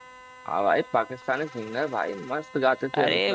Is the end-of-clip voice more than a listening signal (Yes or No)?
Yes